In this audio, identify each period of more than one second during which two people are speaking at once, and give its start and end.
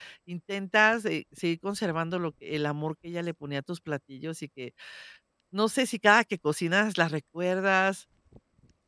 none

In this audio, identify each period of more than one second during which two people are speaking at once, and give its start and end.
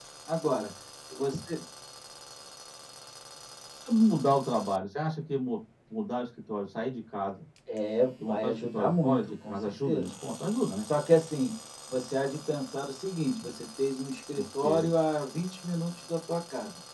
8.2-10.1

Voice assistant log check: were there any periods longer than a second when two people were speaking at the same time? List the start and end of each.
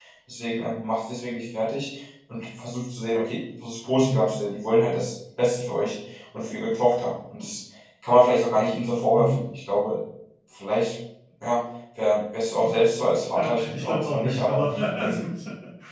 13.3-15.3

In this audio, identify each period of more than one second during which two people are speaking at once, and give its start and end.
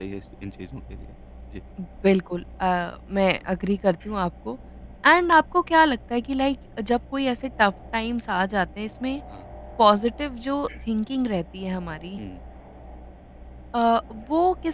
none

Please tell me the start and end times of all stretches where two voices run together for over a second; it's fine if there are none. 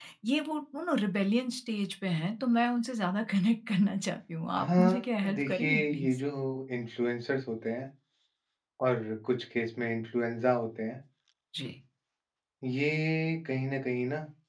4.6-6.2

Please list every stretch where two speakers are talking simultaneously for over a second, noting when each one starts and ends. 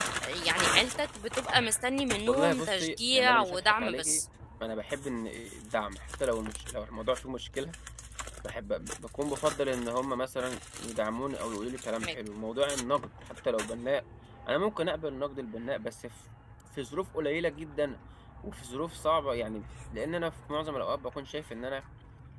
2.3-4.2

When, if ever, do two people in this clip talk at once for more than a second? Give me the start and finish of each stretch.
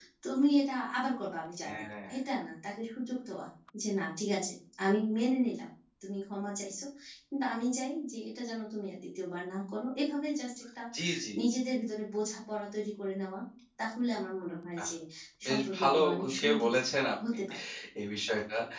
15.5-16.7

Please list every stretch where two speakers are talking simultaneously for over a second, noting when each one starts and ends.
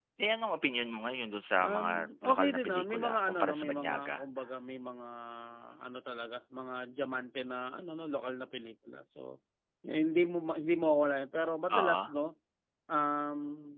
2.3-4.2

